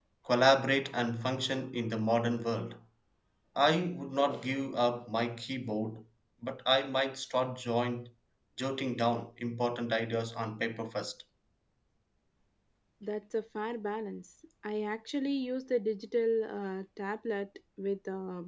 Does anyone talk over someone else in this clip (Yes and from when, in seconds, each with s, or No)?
No